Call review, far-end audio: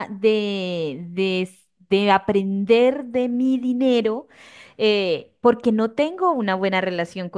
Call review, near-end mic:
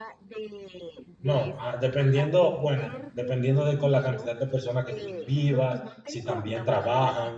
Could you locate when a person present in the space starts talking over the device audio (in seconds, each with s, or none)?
1.2 s